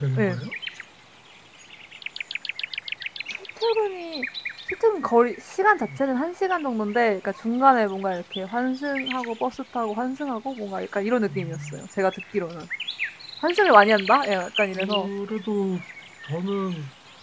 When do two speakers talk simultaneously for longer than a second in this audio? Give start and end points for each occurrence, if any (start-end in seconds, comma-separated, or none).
none